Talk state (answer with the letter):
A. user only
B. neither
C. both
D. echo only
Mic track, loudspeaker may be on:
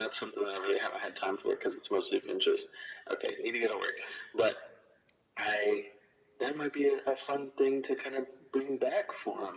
D